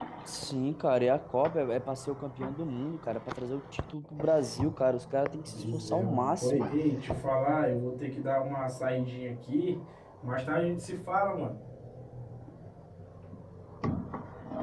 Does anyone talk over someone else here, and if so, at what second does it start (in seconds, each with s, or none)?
5.4 s